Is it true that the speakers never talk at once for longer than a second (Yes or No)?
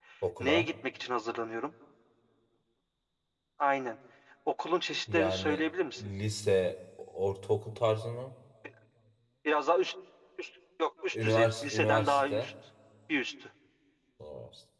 No